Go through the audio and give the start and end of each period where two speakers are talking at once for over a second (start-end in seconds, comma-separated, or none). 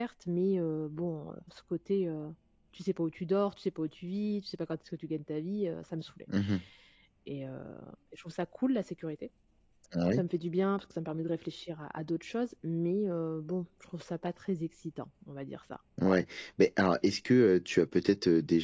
none